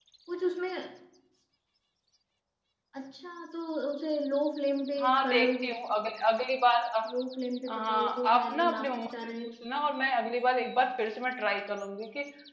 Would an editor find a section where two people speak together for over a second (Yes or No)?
Yes